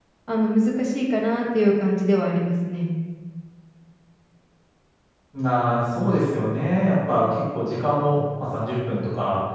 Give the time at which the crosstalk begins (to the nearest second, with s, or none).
none